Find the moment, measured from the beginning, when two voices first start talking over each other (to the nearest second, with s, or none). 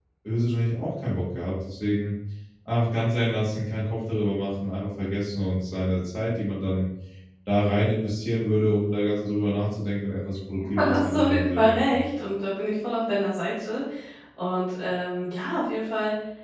11 s